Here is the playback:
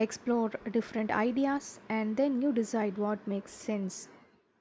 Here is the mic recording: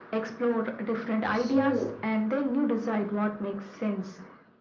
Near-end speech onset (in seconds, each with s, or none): 1.3 s